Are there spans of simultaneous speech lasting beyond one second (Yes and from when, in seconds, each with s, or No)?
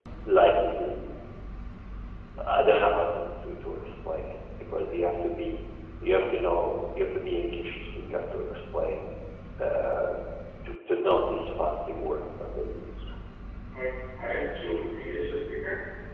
No